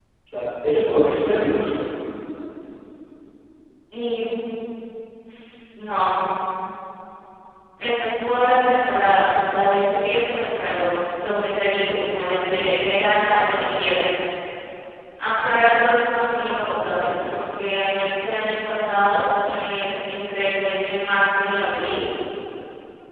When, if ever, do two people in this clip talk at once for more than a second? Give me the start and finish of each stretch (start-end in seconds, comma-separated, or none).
none